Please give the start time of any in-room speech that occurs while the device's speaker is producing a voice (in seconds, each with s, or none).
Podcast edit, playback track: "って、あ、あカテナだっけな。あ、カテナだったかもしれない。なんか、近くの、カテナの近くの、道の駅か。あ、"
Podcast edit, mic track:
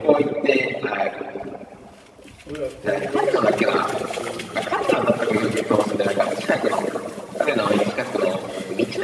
2.4 s